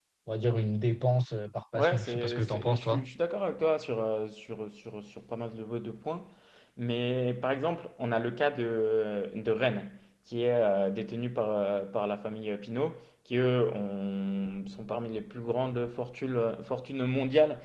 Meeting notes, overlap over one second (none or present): present